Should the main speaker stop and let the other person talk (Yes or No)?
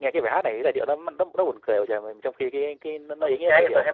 Yes